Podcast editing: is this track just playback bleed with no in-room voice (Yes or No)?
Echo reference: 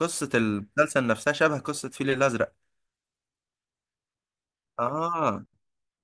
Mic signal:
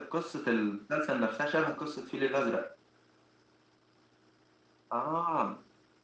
Yes